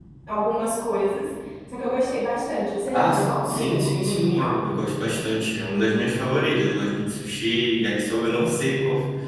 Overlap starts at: 2.9 s

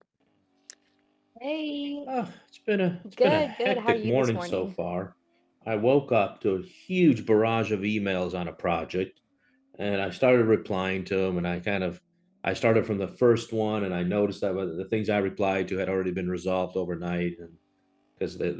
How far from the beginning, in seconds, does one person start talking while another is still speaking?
3.2 s

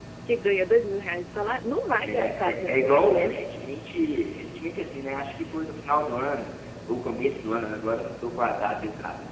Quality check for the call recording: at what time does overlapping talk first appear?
2.0 s

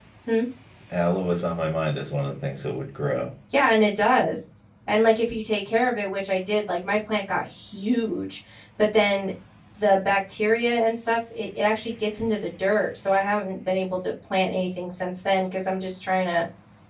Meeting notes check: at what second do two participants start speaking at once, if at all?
none

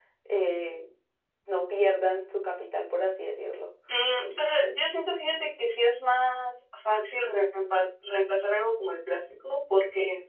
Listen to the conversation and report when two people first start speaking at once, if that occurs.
none

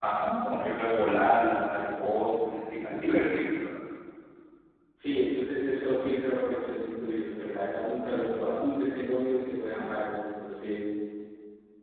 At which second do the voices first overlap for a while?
none

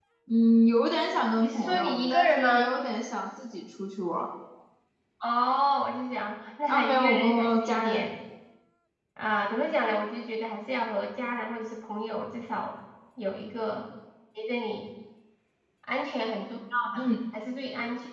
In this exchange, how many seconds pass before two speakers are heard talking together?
1.4 s

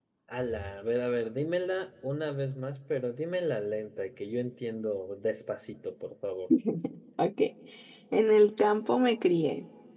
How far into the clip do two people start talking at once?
none

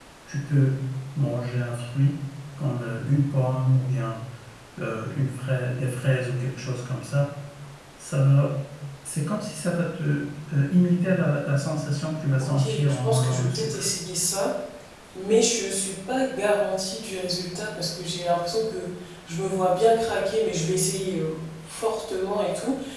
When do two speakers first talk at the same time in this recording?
12.4 s

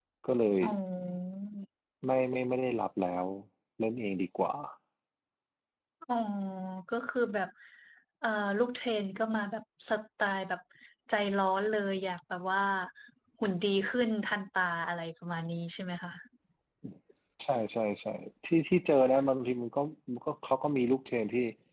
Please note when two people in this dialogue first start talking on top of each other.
none

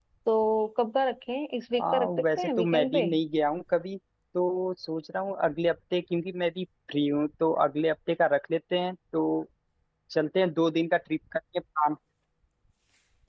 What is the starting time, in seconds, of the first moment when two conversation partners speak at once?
1.8 s

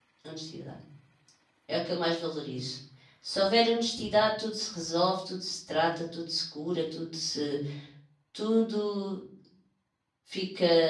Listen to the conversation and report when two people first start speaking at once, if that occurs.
none

